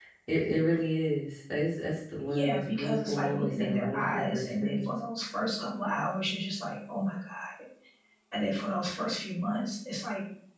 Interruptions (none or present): present